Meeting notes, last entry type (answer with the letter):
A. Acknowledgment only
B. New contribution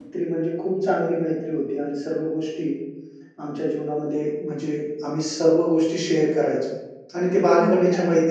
B